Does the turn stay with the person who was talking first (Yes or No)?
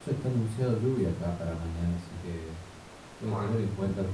Yes